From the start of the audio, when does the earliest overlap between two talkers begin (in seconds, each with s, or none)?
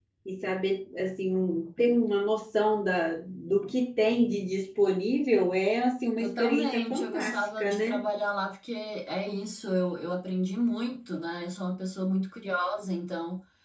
6.2 s